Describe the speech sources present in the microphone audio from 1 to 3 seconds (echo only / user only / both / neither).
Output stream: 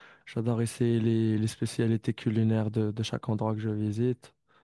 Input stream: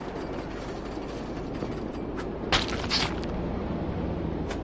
neither